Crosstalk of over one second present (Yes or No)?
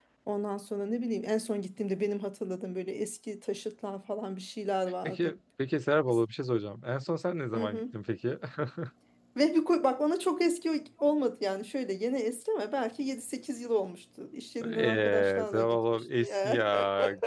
Yes